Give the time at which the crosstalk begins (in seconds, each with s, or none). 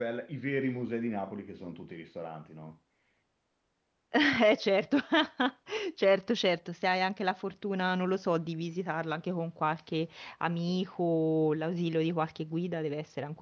none